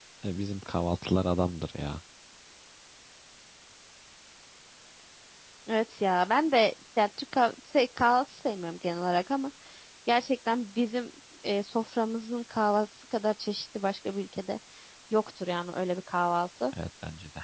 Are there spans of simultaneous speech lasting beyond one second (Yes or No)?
No